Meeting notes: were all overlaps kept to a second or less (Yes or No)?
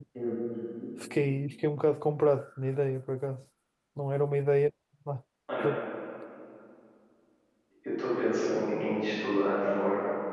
Yes